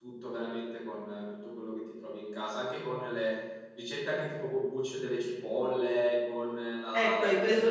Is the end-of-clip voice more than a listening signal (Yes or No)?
Yes